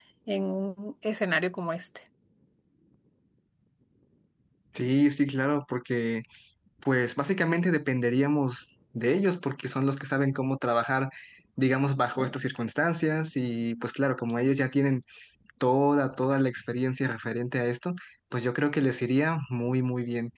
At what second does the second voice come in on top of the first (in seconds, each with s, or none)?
none